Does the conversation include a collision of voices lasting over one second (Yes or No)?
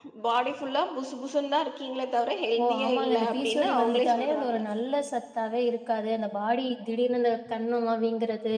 Yes